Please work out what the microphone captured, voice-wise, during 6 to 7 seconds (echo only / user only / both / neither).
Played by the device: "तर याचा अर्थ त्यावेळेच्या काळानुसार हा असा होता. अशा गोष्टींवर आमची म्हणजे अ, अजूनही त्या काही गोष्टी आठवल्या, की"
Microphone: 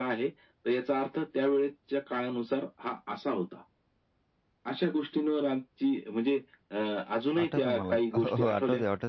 echo only